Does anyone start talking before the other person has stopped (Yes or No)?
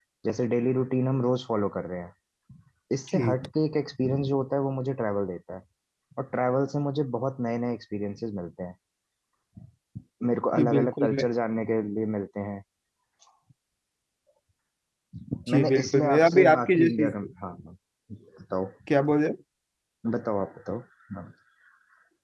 Yes